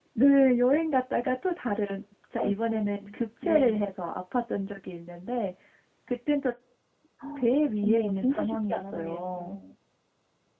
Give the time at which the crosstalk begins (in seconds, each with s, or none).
2.4 s